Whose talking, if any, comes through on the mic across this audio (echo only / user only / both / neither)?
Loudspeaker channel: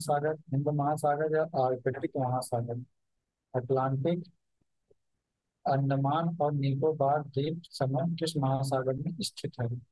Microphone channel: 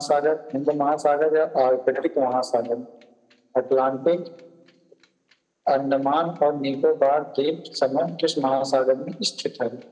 echo only